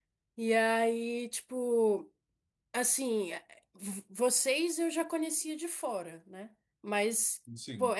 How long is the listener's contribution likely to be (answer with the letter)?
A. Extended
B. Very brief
B